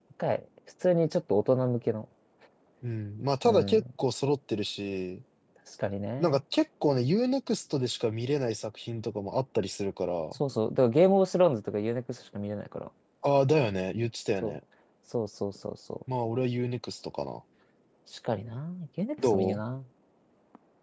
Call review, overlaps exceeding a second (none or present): none